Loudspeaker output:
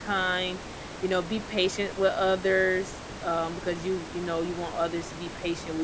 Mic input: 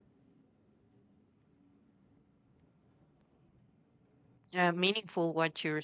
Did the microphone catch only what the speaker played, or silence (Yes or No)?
No